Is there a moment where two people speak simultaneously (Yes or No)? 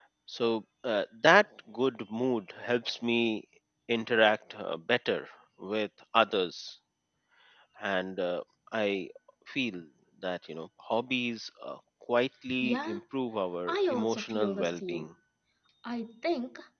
Yes